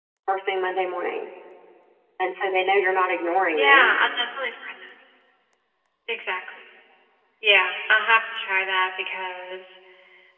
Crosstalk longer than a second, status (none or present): none